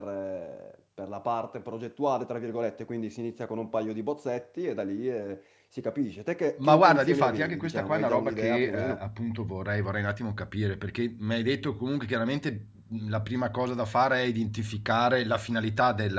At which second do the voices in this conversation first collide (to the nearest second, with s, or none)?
7 s